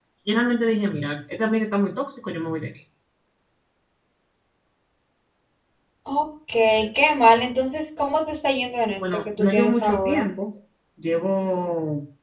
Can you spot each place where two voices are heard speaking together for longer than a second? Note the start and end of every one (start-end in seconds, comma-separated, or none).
9.0-10.3